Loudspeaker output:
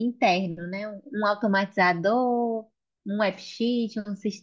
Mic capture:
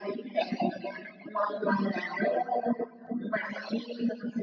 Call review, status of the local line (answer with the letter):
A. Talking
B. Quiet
B